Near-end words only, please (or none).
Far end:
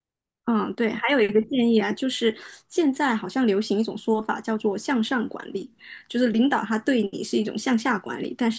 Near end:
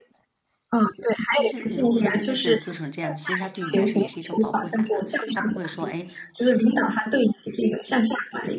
但是如果说真的是做成这样，其实他对你来说也是一种保护伞啊，他不会说，哎，